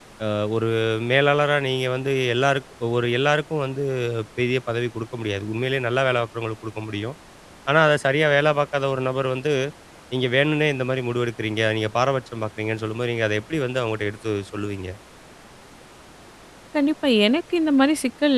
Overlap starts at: none

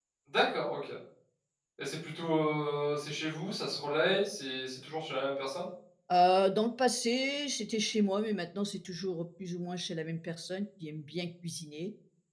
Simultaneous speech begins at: none

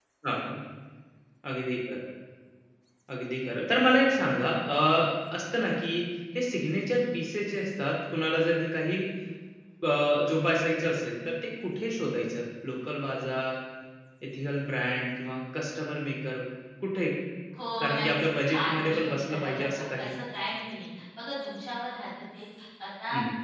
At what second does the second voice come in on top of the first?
17.8 s

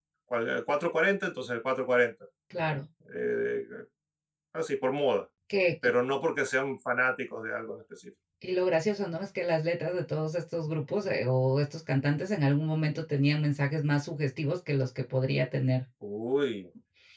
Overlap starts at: none

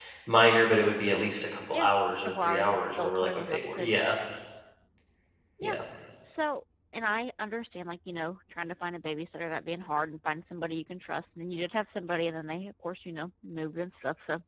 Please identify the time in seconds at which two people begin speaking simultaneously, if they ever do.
1.7 s

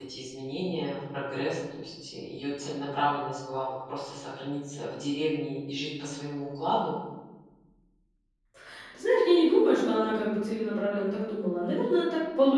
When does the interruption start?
none

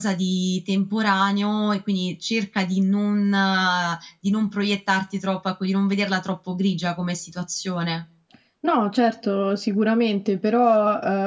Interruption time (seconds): none

